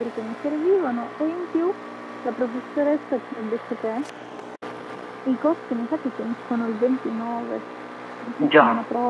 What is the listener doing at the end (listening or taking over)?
listening